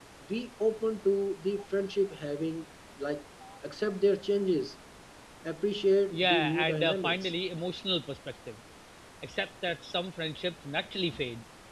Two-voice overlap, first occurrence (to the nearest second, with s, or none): 6 s